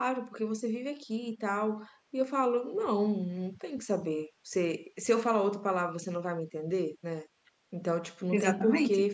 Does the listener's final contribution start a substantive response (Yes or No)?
No